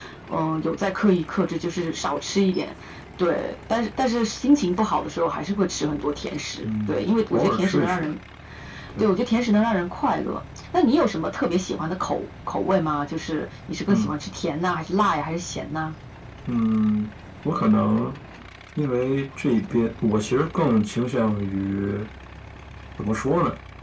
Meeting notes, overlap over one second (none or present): present